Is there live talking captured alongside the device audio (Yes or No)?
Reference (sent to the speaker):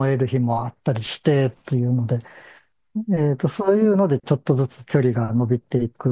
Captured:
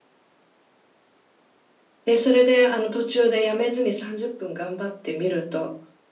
Yes